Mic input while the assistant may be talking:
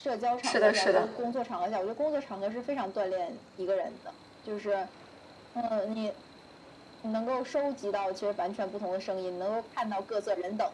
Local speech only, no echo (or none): 是的是的。